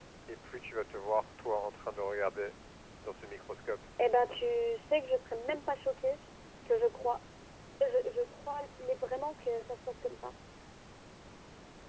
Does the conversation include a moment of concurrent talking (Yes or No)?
No